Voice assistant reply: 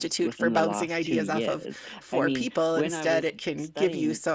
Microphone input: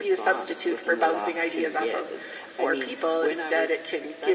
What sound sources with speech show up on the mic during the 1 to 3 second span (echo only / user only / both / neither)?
echo only